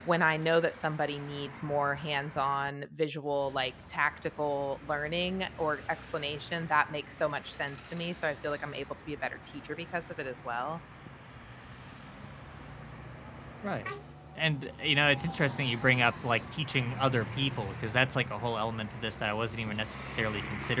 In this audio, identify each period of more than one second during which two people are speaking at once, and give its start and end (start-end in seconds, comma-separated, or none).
none